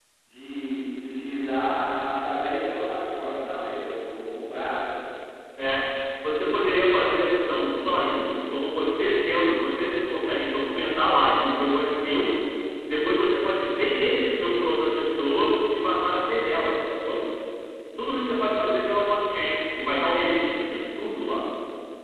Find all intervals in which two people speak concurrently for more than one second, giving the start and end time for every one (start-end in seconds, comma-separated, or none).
none